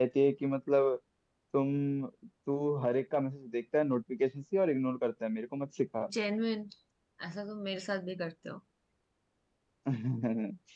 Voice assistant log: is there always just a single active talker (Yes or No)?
Yes